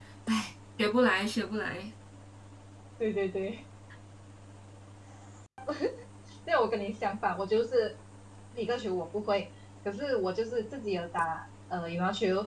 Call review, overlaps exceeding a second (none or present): none